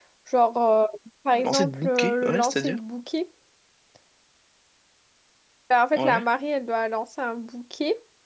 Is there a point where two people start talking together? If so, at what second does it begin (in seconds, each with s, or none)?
1.4 s